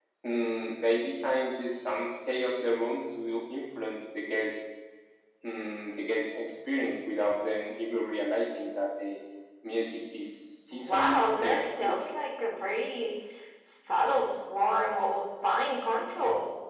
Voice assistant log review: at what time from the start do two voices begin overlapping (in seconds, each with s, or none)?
10.7 s